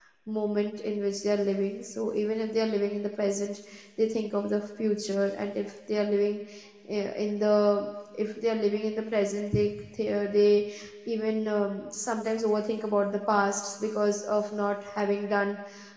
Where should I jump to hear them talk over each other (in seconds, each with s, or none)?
none